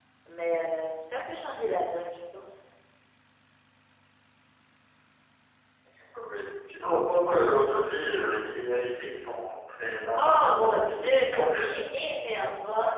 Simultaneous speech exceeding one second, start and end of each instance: 10.2-11.7

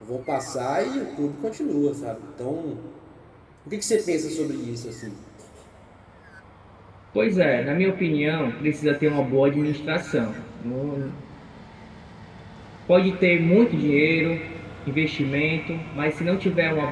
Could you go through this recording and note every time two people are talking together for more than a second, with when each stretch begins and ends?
none

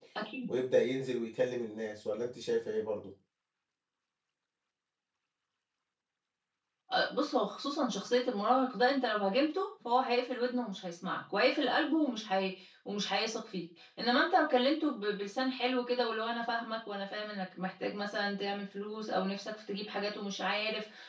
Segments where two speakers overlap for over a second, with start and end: none

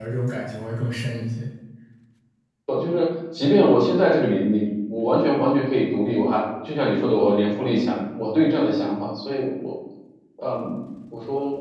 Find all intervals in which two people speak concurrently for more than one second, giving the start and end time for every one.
none

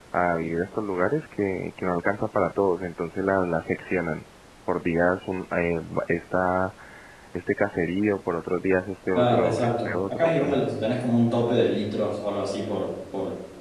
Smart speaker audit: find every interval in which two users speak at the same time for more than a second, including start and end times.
9.2-10.6

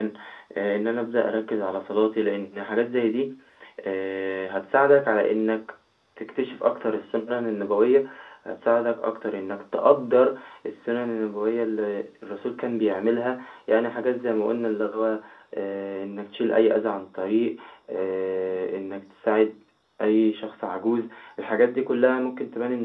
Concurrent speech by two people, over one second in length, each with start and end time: none

